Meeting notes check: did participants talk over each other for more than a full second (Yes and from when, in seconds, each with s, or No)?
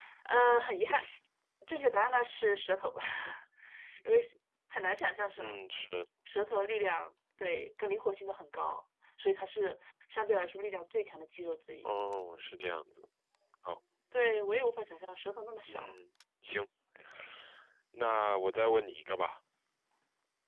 No